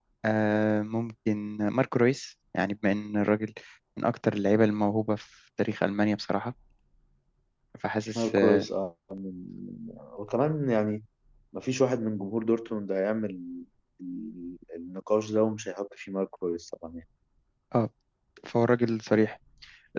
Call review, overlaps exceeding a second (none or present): none